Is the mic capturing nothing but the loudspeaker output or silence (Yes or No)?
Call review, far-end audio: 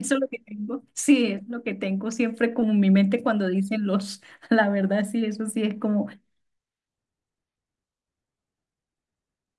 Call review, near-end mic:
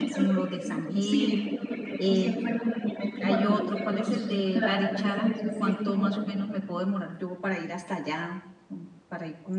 No